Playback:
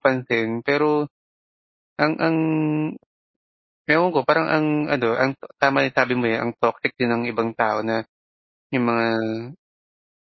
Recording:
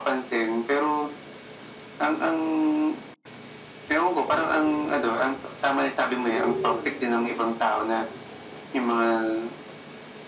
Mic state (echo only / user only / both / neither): echo only